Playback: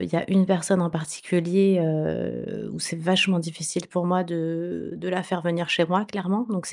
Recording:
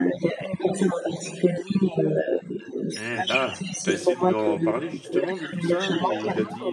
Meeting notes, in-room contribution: present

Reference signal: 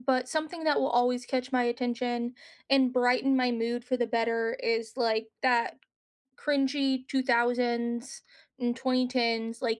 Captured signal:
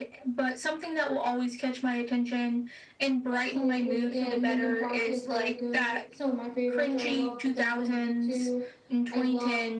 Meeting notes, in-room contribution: present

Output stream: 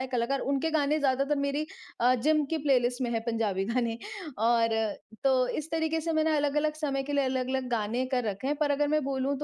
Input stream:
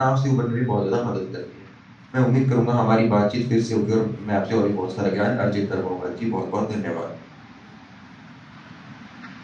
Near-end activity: present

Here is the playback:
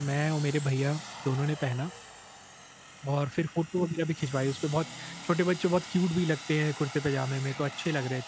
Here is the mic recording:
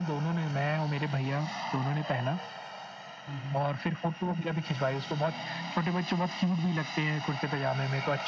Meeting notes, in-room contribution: present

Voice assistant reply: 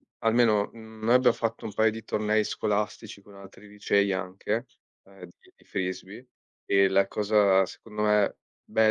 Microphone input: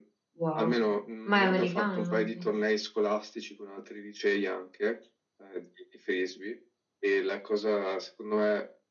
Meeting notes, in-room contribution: present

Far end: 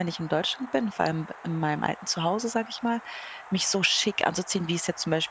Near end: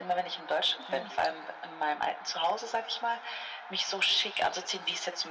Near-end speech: present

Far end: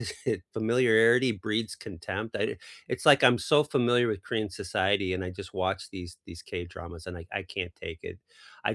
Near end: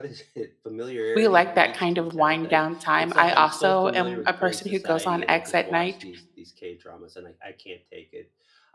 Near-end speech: present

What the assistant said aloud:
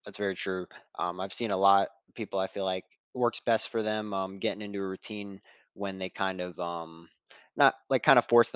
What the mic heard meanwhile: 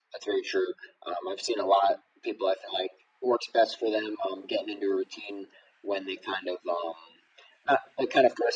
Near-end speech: none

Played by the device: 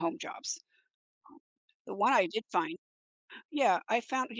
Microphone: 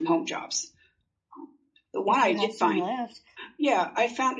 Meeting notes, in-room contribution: present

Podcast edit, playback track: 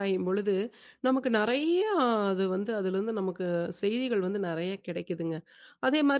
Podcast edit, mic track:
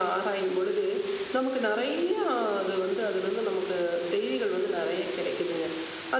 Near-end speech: none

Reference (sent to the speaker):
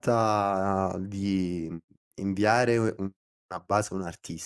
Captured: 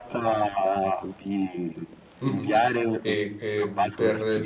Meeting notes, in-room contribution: present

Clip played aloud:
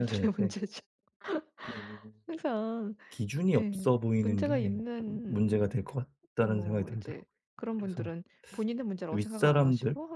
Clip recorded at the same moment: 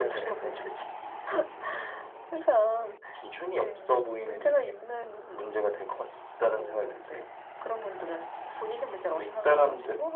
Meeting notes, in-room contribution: none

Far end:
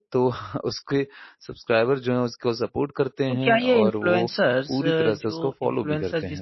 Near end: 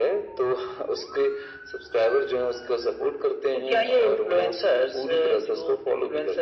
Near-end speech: none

